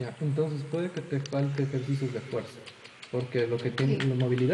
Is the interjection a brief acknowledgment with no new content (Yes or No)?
Yes